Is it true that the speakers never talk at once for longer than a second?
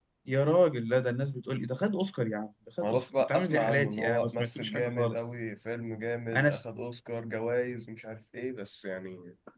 No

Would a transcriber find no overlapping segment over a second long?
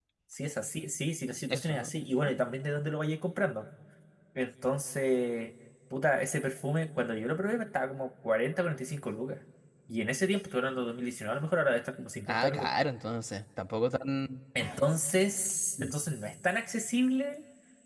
Yes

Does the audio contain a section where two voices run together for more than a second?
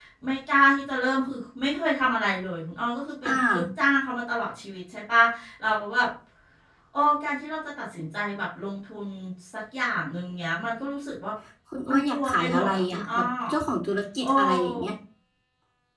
Yes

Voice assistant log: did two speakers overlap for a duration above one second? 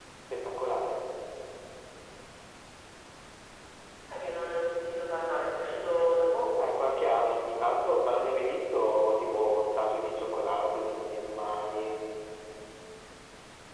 No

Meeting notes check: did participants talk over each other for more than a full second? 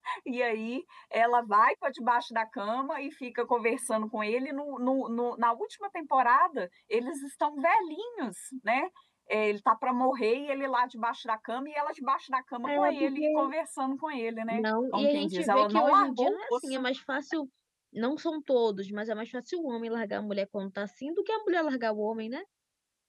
Yes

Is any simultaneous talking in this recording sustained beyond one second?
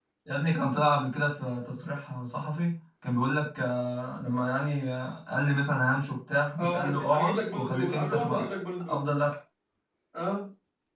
Yes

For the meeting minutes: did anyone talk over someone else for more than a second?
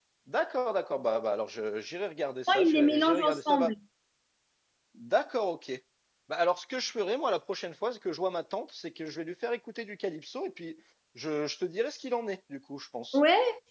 Yes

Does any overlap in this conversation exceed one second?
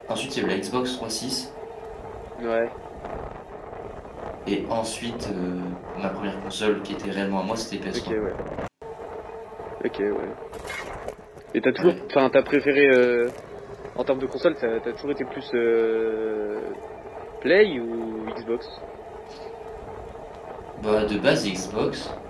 No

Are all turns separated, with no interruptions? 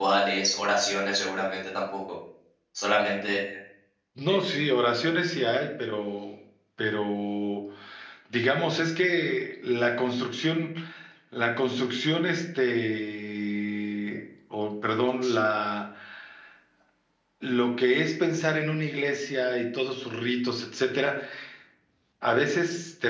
Yes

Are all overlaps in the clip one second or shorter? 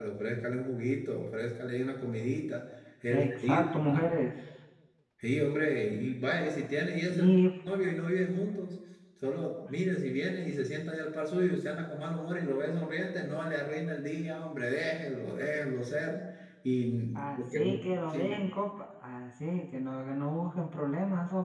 No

